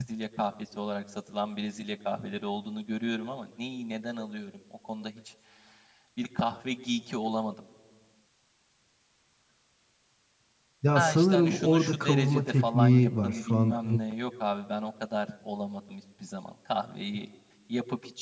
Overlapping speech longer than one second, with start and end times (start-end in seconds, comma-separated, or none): 10.9-13.7